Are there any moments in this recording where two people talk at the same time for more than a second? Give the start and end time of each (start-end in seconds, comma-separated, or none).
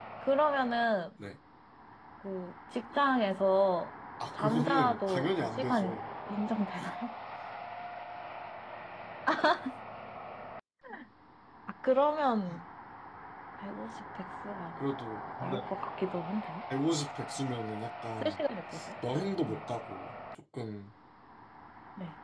4.4-6.0